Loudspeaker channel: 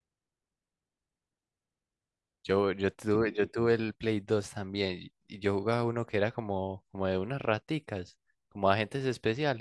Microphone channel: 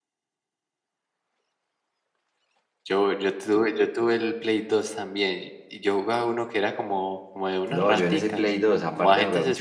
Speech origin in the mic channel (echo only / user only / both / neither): both